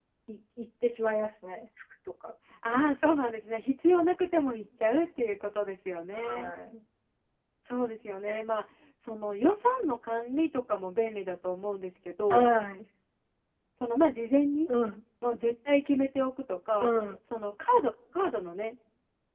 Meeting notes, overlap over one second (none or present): none